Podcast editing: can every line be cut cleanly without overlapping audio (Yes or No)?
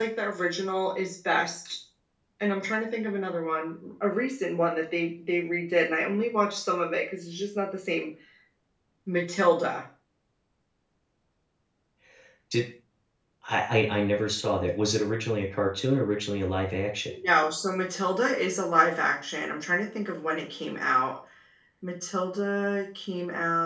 Yes